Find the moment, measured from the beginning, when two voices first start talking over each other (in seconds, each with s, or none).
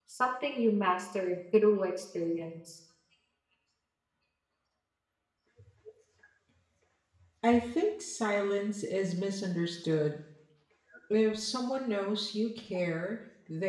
none